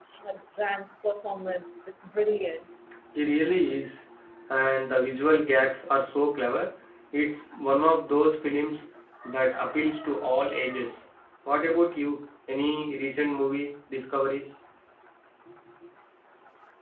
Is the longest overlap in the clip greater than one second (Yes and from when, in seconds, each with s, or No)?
No